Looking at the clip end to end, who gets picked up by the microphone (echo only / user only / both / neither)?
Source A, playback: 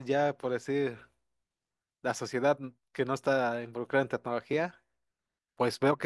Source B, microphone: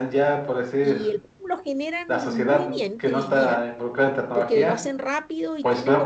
both